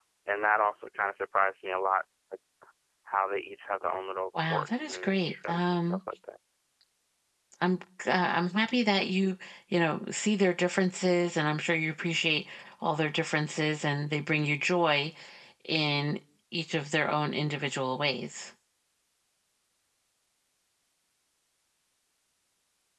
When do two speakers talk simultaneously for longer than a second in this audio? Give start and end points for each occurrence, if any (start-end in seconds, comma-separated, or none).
4.5-6.0